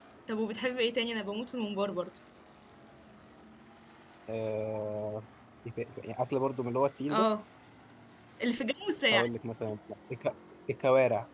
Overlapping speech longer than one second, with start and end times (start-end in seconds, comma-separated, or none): none